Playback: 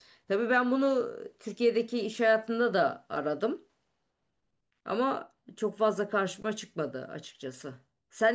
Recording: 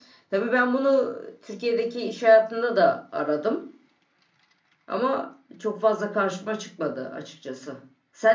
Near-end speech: none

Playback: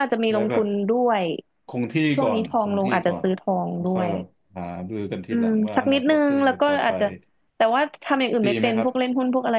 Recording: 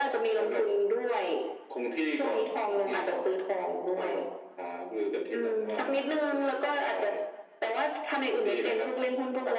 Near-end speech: none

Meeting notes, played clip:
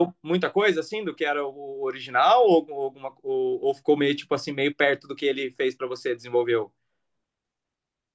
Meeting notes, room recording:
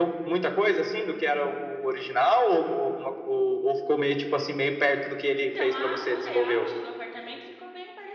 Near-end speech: present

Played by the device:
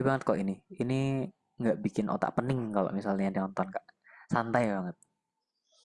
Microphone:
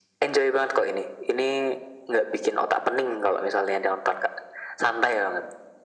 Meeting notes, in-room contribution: none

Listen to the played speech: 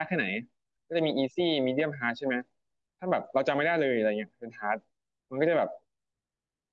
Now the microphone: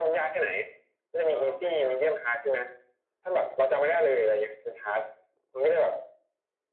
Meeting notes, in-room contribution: present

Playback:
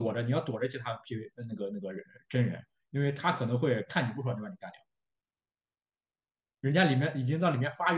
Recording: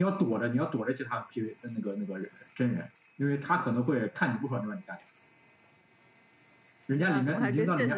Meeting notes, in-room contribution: present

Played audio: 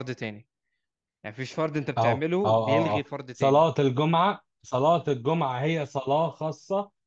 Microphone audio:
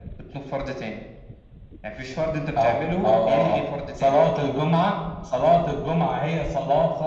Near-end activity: none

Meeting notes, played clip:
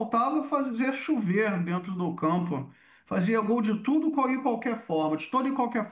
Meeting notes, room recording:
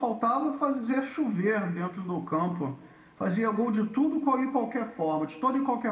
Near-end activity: none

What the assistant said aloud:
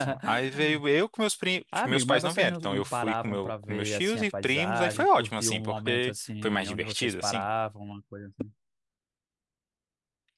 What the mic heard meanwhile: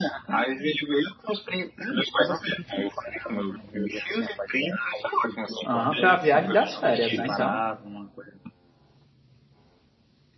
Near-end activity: present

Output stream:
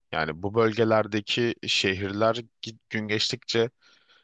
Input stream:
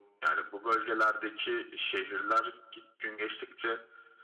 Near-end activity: none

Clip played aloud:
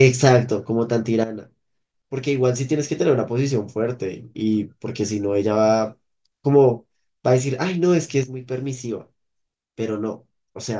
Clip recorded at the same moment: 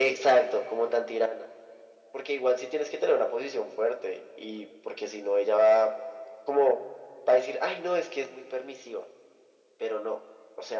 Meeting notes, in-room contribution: none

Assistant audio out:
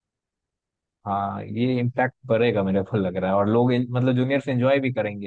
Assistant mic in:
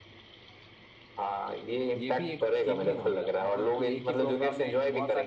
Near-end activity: present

